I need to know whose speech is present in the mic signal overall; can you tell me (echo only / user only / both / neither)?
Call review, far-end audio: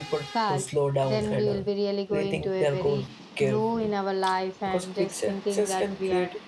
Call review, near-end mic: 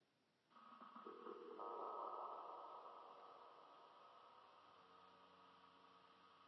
neither